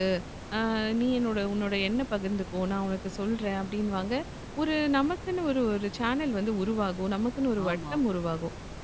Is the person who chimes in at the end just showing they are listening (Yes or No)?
Yes